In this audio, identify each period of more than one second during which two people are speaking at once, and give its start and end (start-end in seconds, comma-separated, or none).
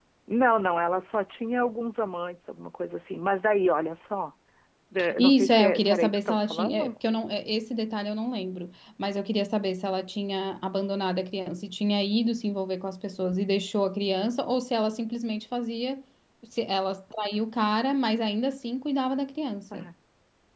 5.2-7.0